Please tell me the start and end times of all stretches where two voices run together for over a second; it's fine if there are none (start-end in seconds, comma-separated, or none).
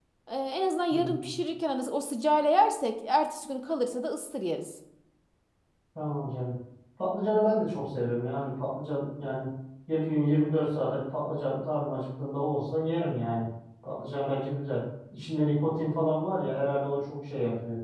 none